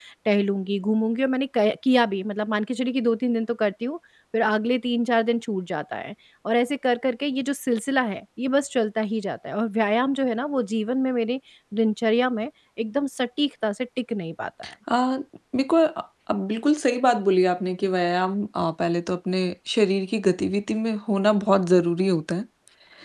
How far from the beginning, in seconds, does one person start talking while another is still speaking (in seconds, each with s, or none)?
none